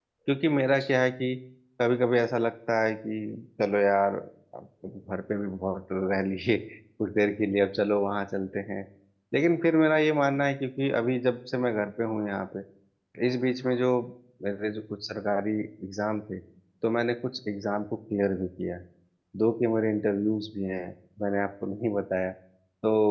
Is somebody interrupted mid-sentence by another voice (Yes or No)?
No